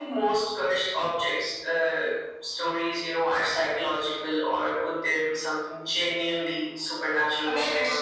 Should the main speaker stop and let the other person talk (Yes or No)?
Yes